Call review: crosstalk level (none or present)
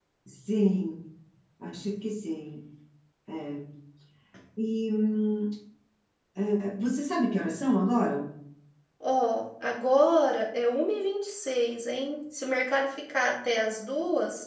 none